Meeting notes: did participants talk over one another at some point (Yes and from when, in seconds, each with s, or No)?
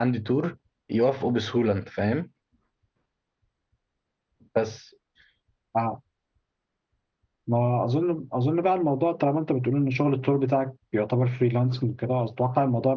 No